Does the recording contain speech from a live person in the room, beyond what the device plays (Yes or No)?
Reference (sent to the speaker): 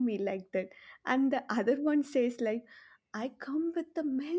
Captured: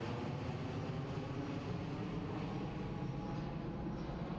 No